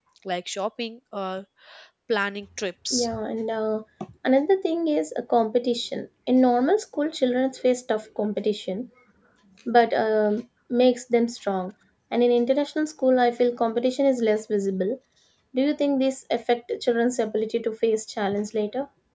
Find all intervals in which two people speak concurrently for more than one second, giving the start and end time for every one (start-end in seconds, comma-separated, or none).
none